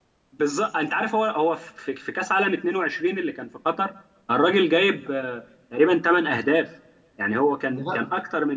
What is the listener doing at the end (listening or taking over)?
listening